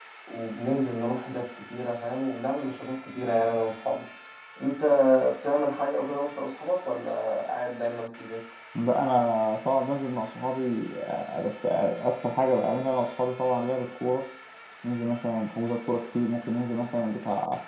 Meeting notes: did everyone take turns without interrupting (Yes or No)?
Yes